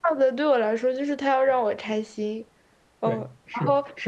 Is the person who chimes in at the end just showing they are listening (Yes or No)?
No